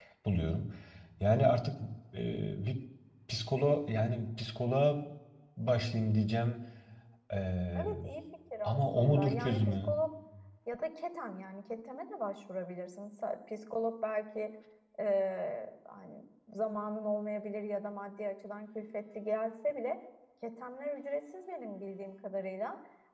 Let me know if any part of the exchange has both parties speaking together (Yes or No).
Yes